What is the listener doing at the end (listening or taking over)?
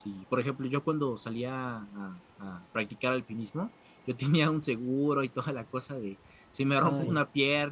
listening